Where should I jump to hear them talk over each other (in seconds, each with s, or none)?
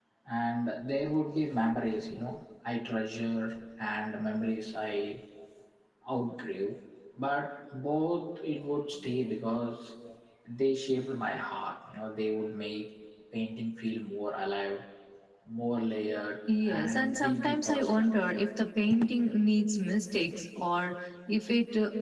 16.4 s